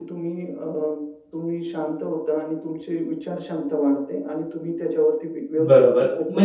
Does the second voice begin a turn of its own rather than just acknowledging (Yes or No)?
Yes